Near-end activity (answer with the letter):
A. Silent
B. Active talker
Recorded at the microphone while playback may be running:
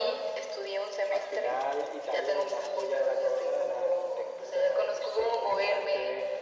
A